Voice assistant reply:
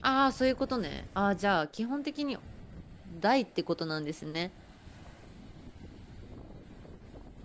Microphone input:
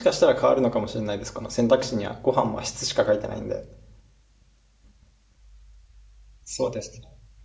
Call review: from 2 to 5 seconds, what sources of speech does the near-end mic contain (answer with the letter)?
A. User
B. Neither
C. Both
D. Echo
A